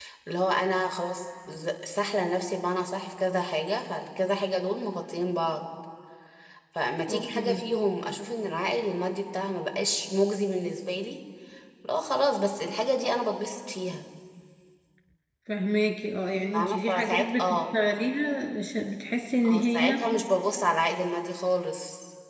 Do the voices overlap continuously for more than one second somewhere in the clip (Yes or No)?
Yes